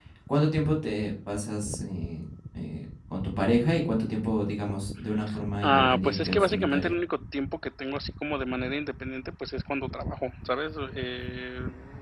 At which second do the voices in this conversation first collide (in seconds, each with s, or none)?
5.6 s